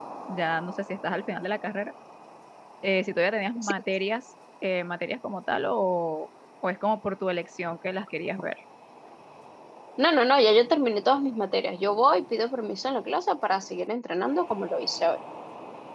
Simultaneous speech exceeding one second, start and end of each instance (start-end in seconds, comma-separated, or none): none